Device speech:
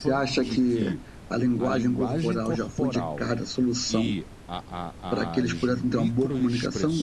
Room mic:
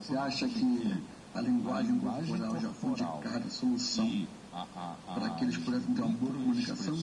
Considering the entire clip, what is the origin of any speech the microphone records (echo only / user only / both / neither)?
echo only